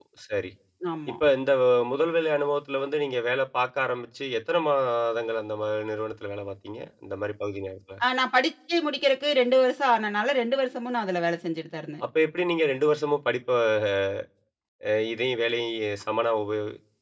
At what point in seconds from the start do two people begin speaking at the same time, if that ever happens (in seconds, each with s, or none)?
none